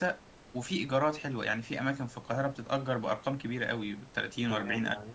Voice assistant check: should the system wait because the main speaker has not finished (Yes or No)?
No